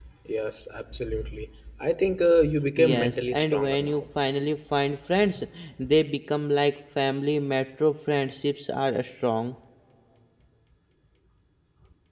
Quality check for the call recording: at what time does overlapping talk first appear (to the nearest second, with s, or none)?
3 s